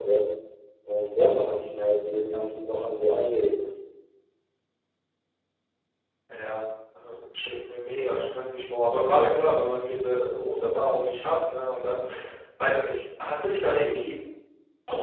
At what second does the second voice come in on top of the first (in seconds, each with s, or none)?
none